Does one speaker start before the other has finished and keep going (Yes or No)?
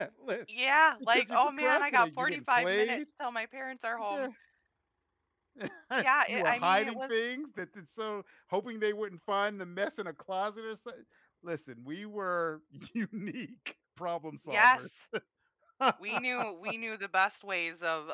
Yes